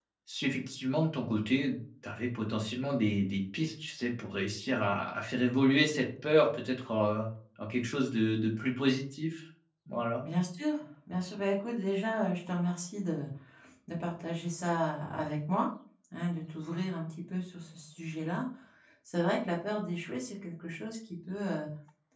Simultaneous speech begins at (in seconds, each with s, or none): none